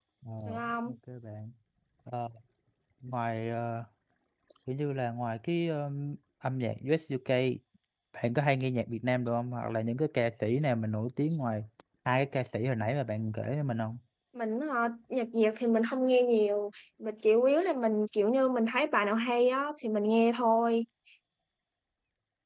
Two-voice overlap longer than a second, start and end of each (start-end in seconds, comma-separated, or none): none